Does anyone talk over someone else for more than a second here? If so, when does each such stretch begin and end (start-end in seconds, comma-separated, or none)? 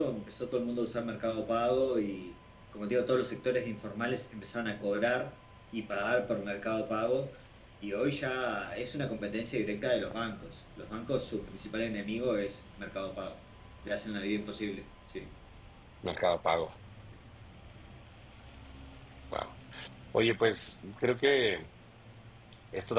none